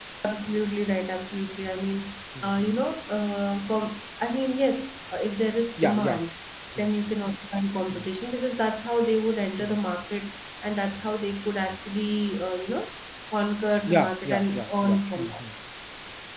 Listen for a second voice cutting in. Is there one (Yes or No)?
Yes